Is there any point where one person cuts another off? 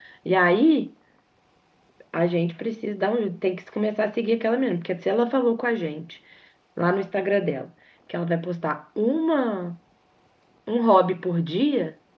No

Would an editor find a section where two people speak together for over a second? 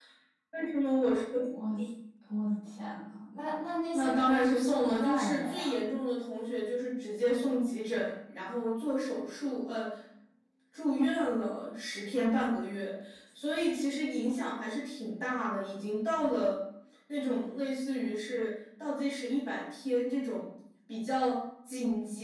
Yes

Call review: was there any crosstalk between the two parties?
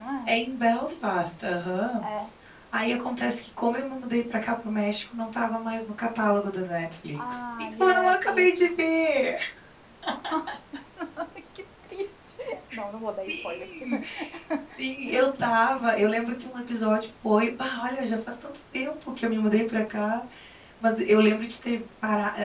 Yes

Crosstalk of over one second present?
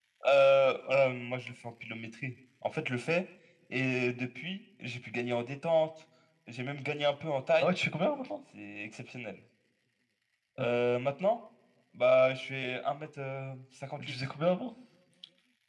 No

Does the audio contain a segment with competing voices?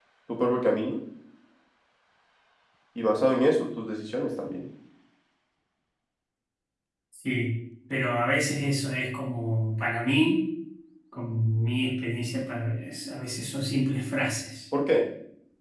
No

